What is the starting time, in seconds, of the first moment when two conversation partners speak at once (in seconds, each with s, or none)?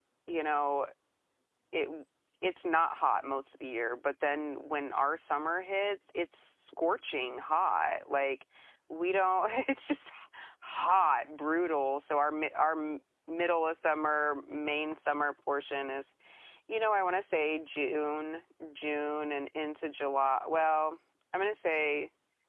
none